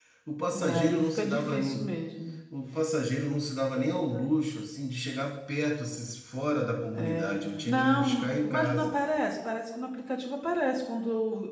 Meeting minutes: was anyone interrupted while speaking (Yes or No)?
Yes